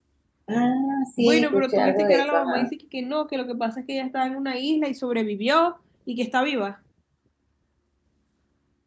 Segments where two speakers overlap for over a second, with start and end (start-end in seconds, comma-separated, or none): 1.2-2.7